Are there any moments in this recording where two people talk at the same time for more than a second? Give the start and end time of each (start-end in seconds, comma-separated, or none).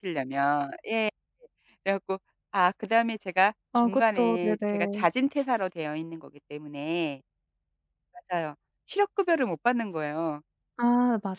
3.8-5.0